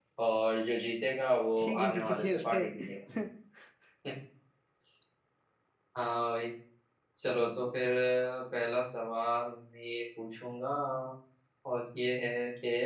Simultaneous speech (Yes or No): Yes